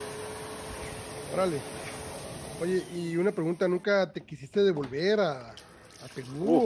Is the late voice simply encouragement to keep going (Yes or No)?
No